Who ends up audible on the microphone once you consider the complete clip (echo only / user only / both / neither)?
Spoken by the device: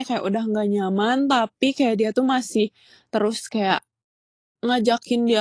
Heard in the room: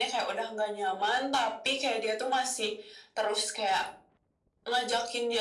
echo only